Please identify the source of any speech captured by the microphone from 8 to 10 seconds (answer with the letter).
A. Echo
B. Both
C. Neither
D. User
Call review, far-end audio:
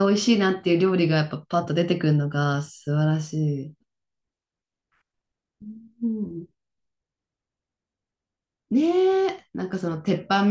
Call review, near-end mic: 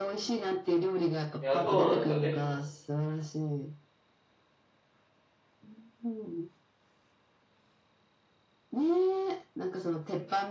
A